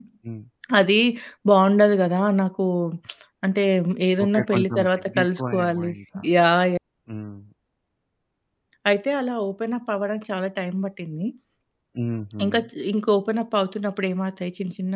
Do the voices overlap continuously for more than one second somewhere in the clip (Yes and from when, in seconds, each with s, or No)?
Yes, from 4.2 s